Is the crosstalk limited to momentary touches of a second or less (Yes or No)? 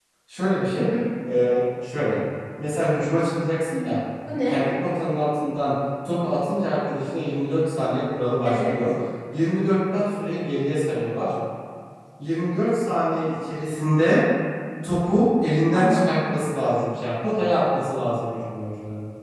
Yes